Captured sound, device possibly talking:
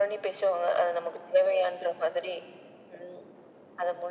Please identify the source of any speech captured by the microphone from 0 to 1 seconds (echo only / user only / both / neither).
echo only